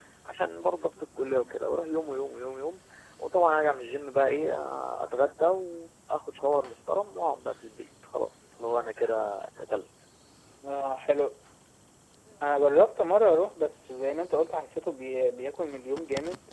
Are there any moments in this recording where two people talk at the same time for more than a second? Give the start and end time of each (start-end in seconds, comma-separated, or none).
none